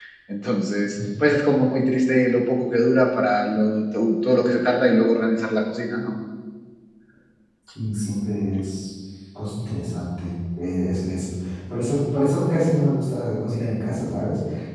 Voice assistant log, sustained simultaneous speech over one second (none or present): none